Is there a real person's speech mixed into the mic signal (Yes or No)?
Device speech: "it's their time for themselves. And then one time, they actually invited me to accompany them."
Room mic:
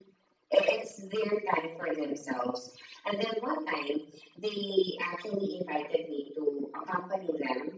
No